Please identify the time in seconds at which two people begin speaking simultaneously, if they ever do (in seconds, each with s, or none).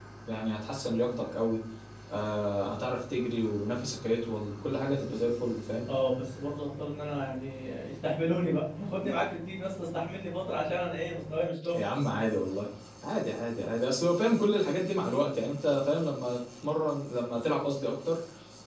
none